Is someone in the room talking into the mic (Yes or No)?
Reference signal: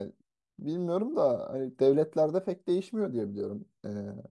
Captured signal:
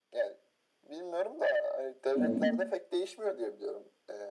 Yes